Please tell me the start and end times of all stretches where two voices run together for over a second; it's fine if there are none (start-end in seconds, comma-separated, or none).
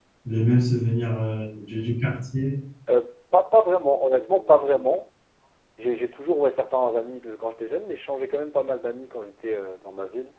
none